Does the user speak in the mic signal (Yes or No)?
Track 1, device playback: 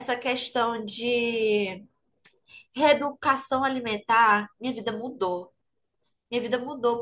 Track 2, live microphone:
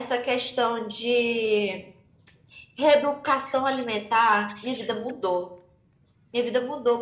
No